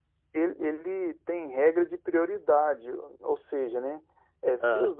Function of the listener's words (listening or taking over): listening